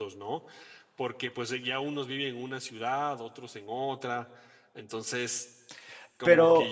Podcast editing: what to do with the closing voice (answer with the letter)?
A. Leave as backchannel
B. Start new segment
A